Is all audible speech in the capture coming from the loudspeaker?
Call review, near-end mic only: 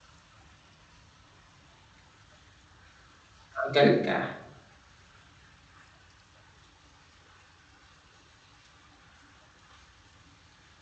No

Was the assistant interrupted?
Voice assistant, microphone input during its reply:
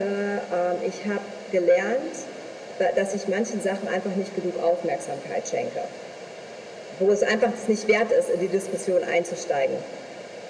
No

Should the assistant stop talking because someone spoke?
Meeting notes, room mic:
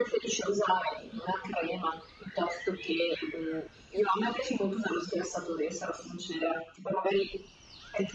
No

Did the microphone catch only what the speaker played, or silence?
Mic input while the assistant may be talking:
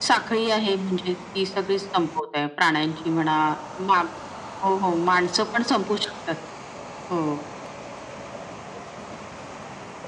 Yes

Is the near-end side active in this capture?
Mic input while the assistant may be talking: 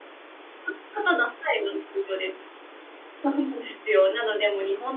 Yes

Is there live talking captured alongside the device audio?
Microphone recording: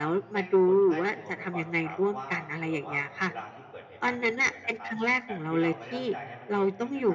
Yes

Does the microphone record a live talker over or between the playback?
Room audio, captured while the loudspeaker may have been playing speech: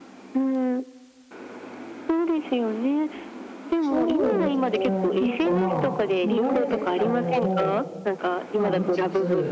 Yes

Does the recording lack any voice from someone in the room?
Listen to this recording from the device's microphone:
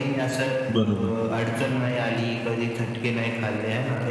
No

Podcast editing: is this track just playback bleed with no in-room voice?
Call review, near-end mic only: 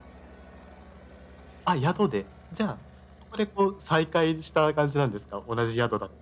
Yes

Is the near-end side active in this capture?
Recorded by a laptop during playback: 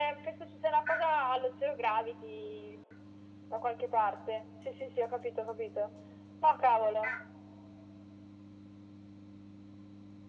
No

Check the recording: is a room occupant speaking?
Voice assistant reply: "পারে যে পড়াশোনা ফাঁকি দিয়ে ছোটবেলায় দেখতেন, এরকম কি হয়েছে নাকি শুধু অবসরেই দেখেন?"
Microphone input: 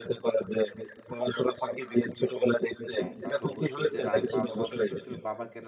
Yes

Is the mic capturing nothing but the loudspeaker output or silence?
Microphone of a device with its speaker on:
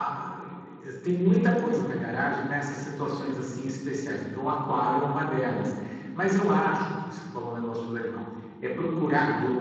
Yes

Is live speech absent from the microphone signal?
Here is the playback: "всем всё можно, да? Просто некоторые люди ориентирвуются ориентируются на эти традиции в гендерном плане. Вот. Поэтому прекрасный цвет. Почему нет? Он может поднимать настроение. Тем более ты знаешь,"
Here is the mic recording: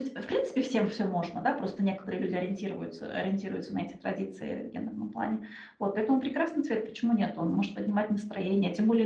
Yes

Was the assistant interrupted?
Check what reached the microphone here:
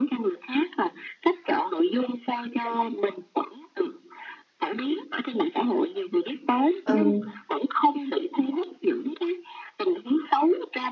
Yes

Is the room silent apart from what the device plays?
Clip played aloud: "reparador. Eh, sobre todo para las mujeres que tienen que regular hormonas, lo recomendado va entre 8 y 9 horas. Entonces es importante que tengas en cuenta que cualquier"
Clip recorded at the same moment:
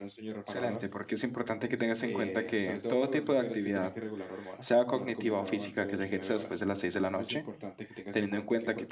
No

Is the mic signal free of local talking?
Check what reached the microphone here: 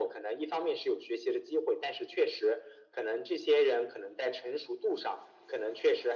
Yes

